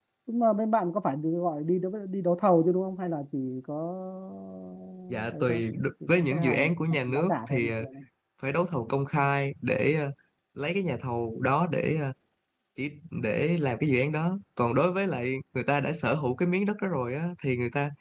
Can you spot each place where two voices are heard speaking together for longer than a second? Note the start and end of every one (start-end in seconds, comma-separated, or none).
6.0-7.8